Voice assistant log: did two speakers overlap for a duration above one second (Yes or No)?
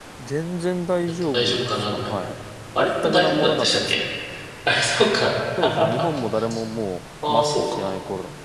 Yes